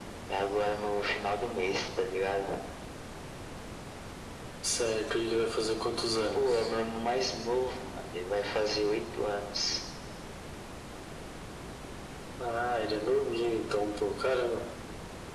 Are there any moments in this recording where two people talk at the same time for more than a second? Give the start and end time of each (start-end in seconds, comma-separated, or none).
none